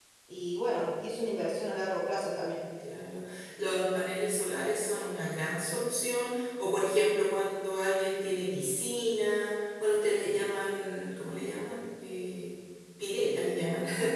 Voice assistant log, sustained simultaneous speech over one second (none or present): none